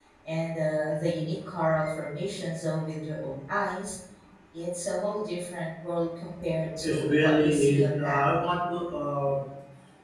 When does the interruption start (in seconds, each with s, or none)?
6.8 s